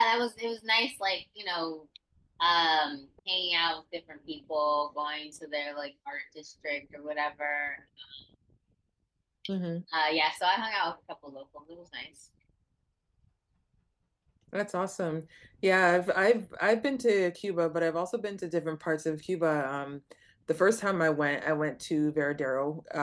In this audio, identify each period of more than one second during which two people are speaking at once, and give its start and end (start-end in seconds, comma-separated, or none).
none